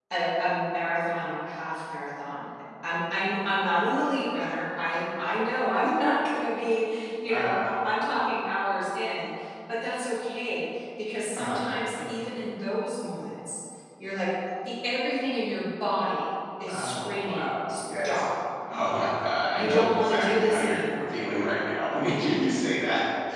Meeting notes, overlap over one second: present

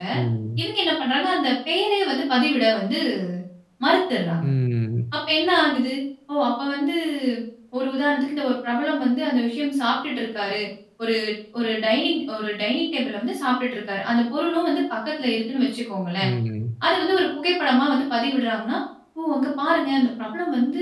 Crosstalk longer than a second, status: none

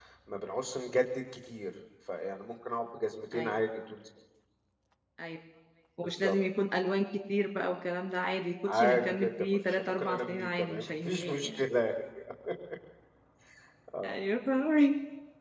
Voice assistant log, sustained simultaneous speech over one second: present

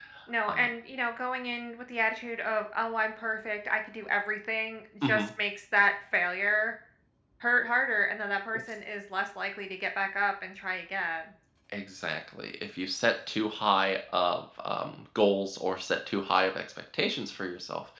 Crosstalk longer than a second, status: none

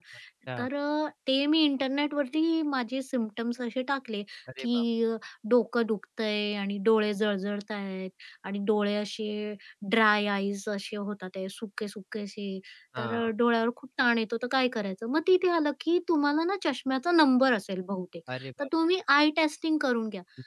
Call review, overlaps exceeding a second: none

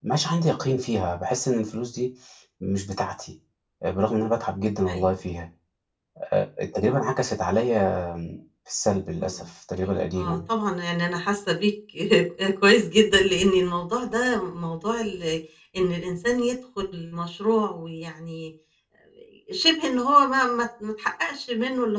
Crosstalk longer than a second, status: none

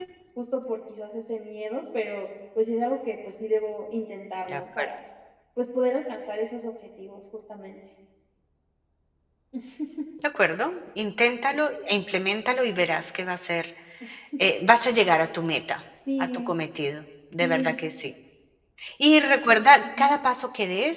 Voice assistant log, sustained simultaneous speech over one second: none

